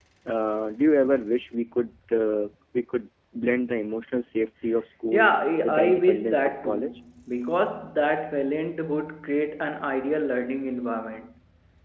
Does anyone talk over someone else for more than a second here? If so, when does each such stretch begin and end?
5.6-7.0

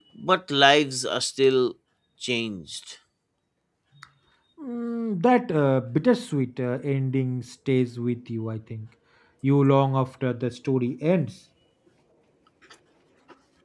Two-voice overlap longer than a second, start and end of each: none

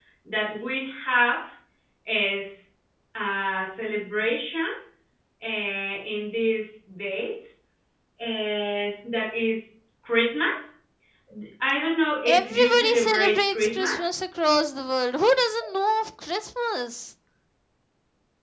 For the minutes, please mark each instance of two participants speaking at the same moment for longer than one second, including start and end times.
12.2-13.9

